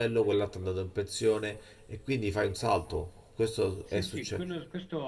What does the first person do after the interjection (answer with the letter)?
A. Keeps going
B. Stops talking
B